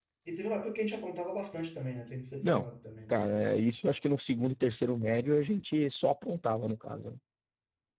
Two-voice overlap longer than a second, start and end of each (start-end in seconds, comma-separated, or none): none